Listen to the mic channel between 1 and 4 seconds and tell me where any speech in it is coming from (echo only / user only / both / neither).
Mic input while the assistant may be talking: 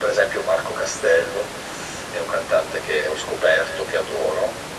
echo only